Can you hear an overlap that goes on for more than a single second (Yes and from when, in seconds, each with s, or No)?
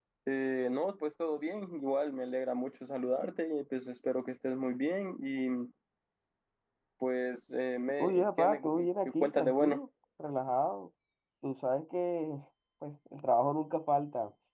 Yes, from 8.0 s